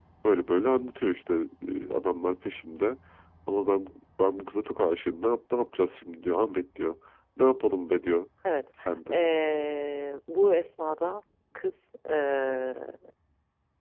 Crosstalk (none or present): none